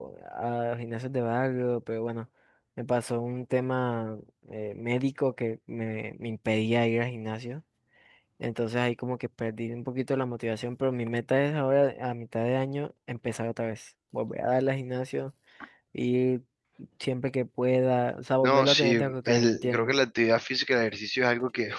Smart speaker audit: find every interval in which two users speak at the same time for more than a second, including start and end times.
18.4-19.9

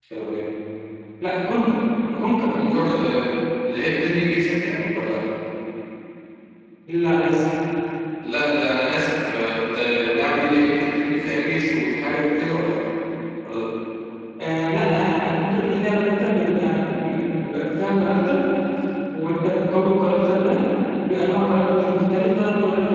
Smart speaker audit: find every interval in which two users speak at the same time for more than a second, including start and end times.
none

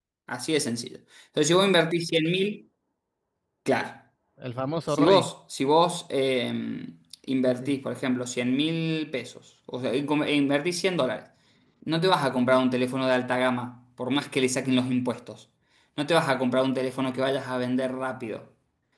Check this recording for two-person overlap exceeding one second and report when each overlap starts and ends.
none

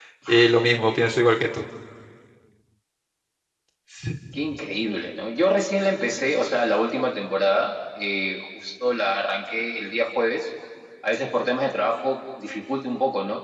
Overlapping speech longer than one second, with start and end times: none

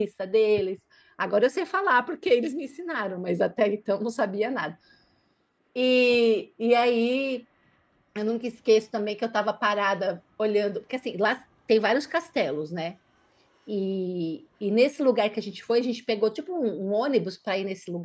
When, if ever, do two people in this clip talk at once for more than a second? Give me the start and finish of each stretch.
none

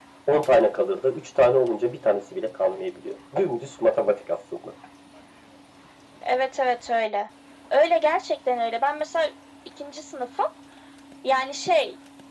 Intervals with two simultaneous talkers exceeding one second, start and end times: none

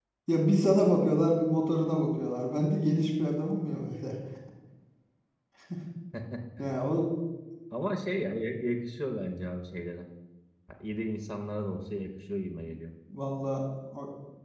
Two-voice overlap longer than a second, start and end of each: none

